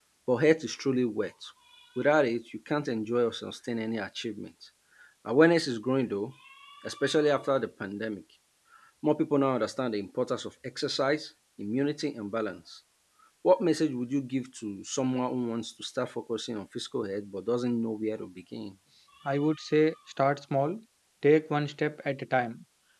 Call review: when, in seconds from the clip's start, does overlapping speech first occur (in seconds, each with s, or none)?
none